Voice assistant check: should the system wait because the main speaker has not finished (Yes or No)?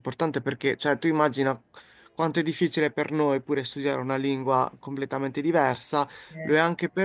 Yes